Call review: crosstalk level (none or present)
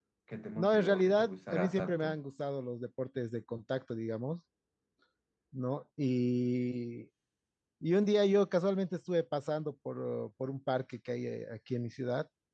present